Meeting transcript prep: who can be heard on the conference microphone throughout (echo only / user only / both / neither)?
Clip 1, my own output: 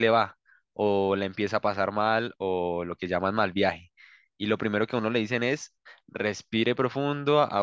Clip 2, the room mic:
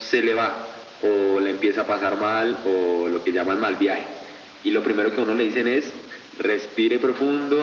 echo only